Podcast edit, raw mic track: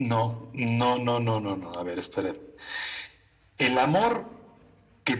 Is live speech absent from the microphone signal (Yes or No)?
Yes